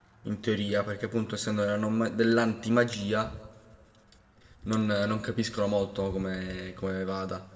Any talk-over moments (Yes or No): No